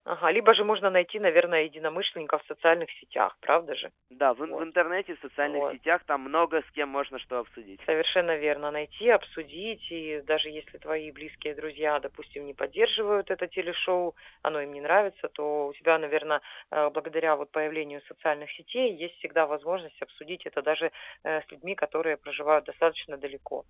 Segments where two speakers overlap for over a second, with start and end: none

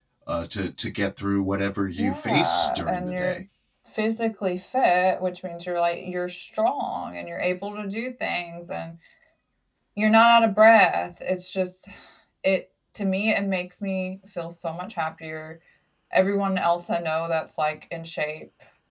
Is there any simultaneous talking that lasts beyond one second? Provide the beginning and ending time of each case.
1.9-3.4

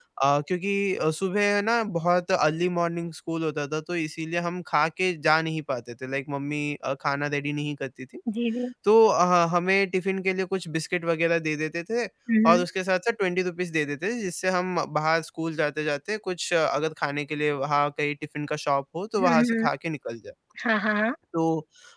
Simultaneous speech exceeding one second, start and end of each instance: none

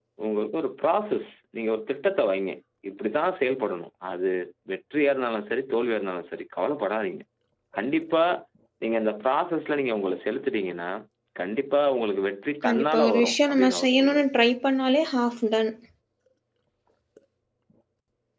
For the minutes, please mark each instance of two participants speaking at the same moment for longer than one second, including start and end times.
12.6-14.2

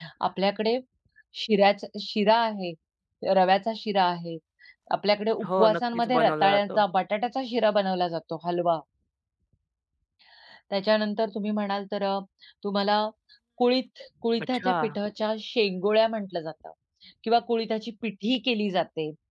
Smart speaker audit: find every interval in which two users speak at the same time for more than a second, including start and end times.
5.4-6.8

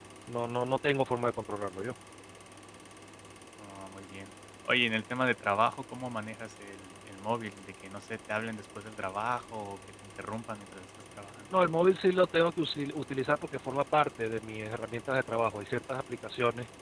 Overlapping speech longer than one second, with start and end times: none

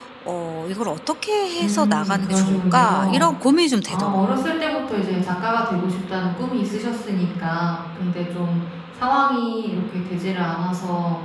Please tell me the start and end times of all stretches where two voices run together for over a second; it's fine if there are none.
1.6-3.2

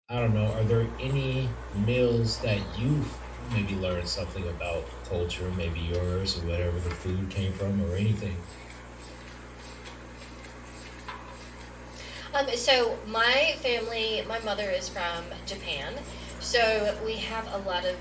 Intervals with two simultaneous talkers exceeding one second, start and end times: none

